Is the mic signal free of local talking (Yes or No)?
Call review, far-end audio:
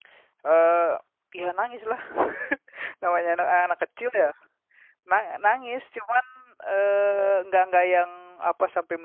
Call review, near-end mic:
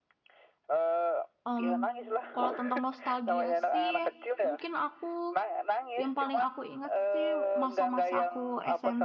No